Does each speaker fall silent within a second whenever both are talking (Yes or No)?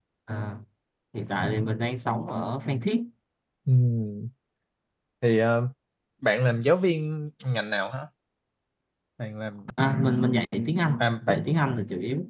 Yes